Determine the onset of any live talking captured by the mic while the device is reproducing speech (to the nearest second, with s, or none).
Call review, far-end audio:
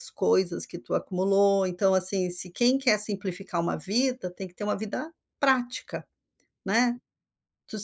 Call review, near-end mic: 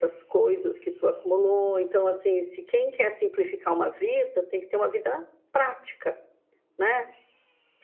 none